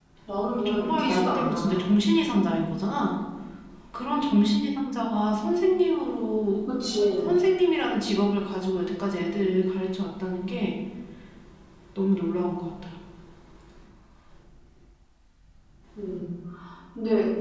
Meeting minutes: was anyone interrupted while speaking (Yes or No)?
Yes